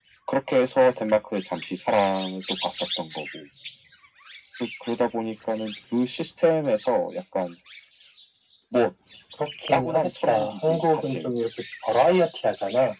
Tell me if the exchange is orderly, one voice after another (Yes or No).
No